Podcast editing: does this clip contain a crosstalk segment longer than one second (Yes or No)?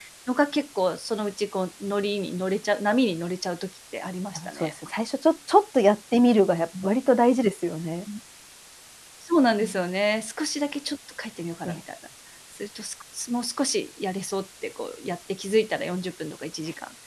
No